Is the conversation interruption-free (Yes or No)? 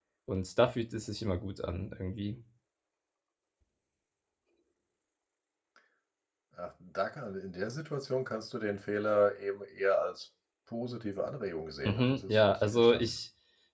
No